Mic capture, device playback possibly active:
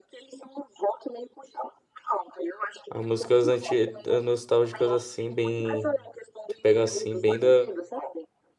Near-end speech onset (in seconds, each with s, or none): 2.9 s